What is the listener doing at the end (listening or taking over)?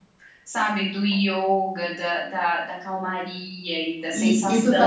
taking over